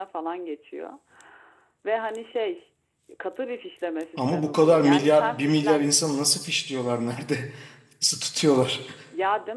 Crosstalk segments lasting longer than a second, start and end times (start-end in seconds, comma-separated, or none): 4.2-6.0